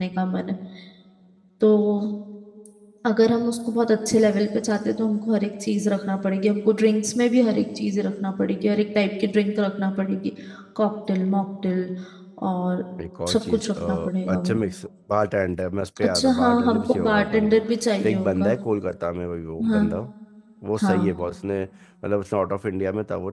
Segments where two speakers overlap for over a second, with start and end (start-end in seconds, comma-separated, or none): 13.3-14.6, 16.1-17.6